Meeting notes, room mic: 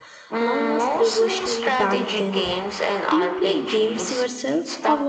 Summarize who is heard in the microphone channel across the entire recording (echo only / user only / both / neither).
both